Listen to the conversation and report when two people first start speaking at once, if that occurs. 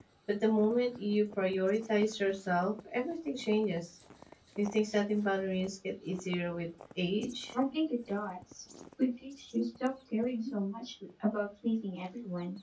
none

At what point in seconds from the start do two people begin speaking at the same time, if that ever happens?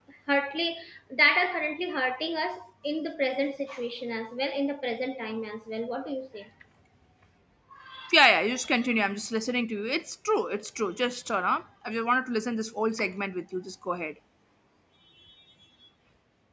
none

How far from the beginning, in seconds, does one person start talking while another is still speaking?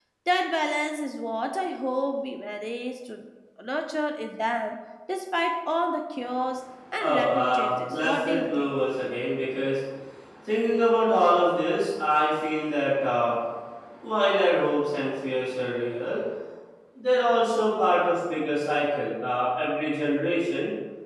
7 s

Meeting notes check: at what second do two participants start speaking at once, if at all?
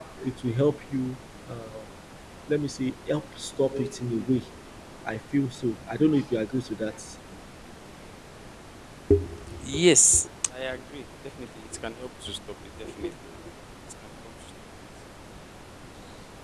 none

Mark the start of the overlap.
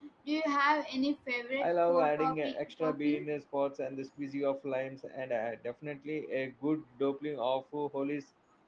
2 s

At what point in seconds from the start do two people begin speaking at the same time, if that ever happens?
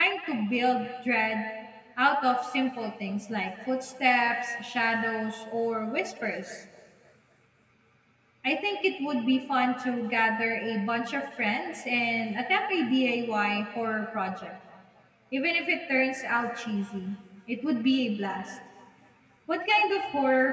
none

